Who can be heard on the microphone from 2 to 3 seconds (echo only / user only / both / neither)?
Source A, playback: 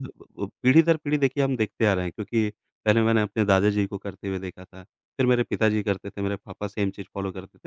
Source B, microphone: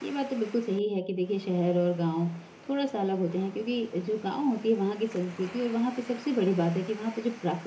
user only